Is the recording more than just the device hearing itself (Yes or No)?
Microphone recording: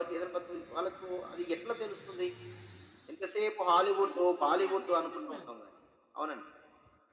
Yes